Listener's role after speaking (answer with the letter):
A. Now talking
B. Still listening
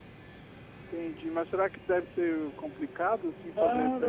A